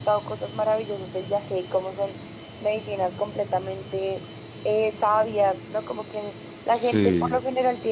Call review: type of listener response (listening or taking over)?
listening